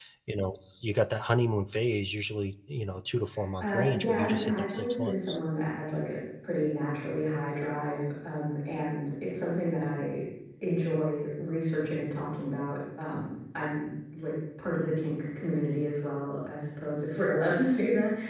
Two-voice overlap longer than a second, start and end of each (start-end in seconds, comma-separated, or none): 3.6-5.4